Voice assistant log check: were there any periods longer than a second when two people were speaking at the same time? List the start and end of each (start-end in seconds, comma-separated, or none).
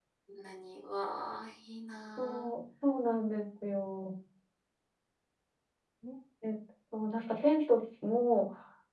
none